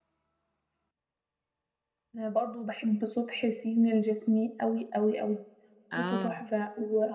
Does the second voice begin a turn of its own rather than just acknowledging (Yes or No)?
No